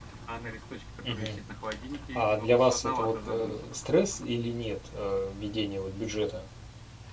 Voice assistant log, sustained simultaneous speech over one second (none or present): present